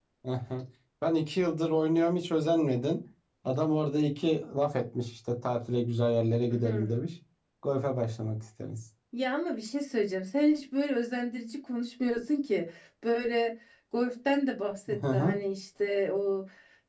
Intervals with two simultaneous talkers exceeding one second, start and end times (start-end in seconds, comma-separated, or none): none